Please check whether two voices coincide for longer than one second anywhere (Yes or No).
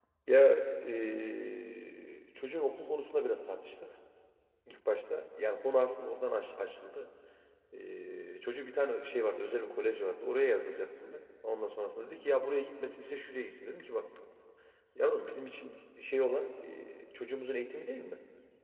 No